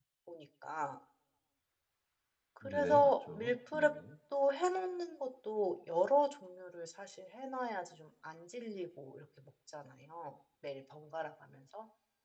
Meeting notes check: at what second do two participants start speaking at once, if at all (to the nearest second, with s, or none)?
3 s